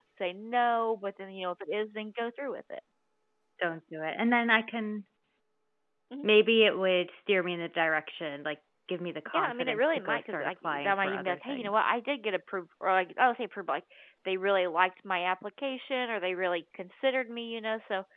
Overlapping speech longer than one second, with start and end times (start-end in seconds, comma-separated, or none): 9.3-11.9